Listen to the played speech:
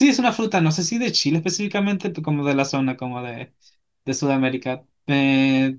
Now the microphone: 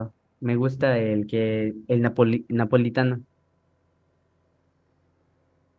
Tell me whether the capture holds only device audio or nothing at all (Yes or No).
No